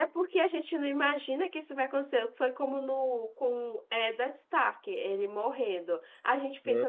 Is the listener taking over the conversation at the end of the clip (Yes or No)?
No